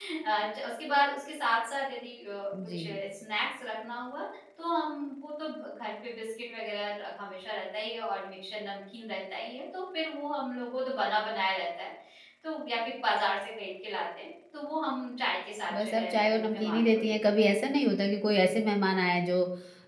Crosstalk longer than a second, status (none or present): present